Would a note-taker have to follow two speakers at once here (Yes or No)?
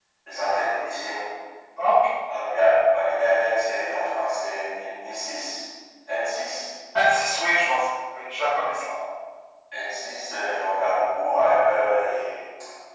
No